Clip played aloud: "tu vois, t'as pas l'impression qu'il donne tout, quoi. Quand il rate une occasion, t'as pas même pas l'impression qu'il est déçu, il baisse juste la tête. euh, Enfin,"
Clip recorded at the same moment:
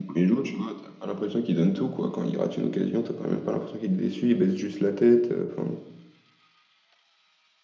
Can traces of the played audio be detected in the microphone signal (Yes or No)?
Yes